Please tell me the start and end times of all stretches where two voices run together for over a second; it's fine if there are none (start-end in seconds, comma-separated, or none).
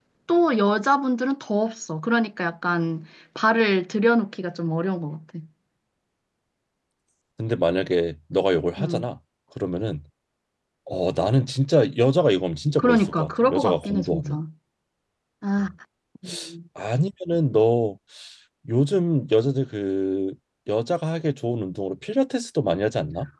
12.8-14.4